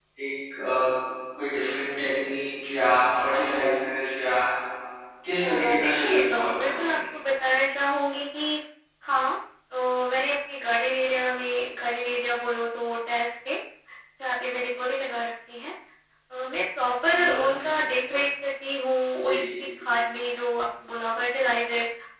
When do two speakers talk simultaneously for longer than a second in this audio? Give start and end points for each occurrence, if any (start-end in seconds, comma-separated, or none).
5.4-7.0